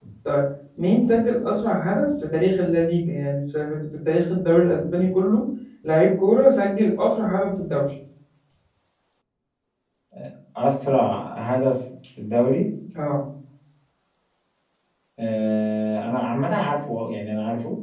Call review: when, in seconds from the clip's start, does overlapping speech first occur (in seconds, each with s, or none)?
none